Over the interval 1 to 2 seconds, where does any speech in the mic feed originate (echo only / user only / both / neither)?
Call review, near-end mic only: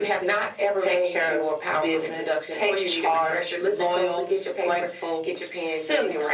echo only